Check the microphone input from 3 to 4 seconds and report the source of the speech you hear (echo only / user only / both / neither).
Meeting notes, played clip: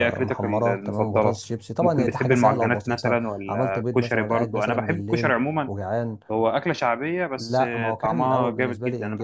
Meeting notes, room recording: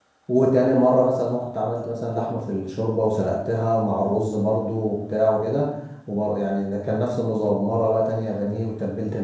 user only